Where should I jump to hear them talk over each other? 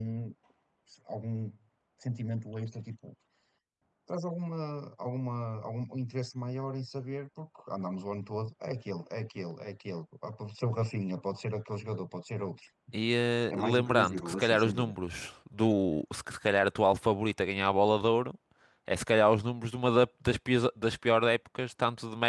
13 s

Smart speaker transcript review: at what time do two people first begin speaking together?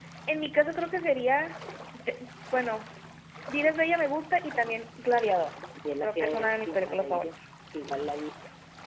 6 s

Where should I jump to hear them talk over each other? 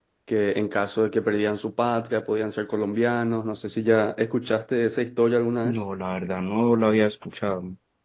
none

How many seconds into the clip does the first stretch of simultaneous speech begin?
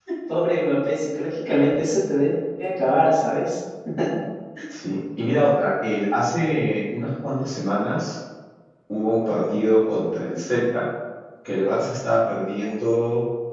none

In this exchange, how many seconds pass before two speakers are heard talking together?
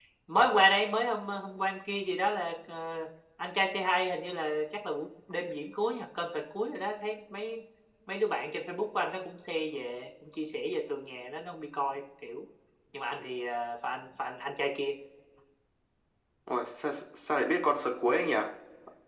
none

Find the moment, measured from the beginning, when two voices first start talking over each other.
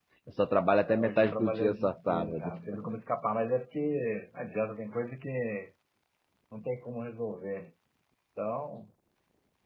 1 s

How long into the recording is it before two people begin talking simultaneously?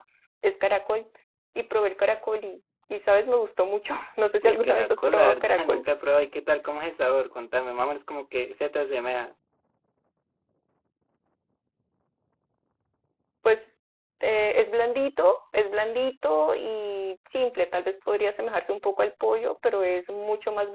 4 s

